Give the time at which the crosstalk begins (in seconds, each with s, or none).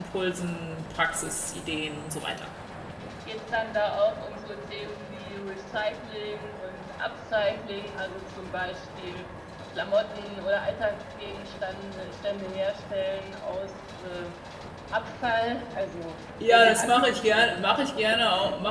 16.5 s